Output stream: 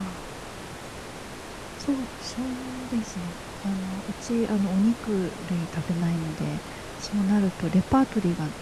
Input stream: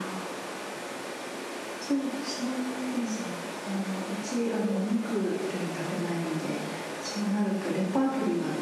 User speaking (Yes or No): No